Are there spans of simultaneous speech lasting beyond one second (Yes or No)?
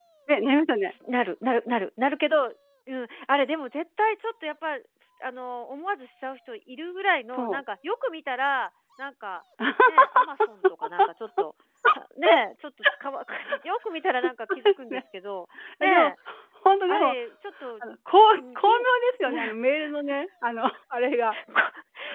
No